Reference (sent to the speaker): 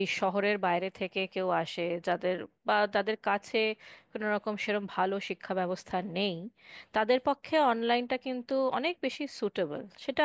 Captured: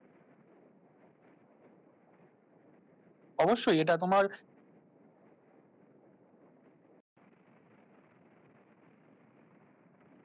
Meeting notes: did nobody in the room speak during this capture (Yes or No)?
No